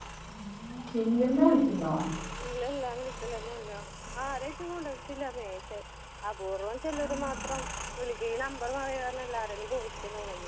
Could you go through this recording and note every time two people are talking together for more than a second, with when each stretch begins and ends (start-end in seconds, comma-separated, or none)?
none